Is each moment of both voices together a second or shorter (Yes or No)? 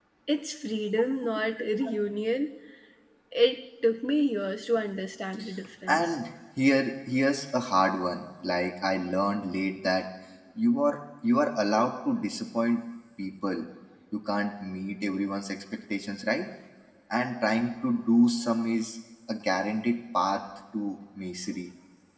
Yes